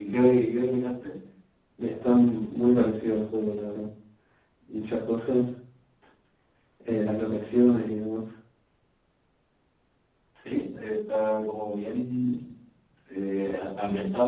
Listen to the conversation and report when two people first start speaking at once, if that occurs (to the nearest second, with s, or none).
none